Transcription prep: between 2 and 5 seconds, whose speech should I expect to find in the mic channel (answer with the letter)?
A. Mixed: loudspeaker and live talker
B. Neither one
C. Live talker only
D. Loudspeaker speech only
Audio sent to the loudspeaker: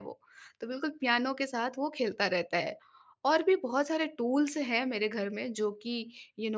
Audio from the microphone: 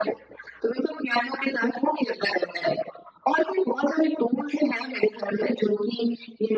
D